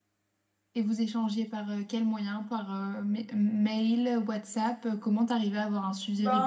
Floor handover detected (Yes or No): Yes